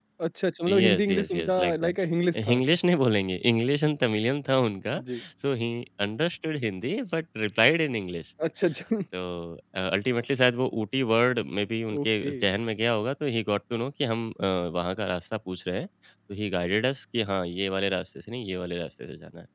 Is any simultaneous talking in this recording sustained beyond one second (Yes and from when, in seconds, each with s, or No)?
Yes, from 0.7 s